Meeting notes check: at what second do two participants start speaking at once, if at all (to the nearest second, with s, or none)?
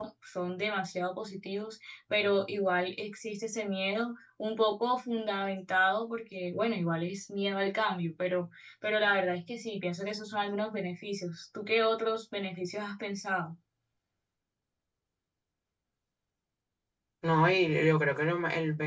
none